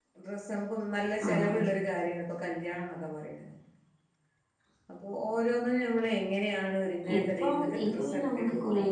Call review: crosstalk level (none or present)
present